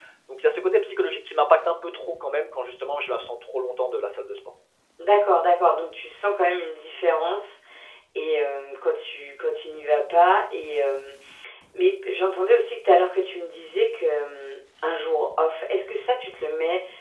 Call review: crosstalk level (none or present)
none